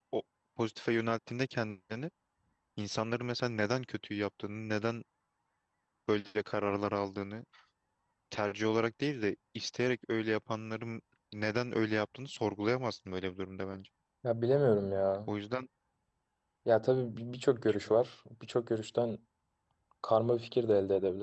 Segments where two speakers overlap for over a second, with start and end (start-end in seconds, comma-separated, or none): none